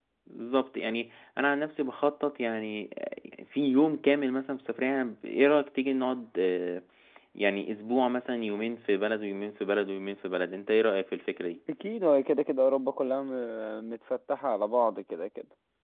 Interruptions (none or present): none